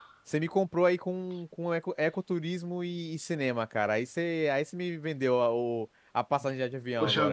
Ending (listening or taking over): taking over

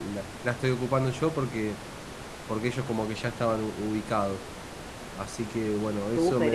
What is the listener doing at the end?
taking over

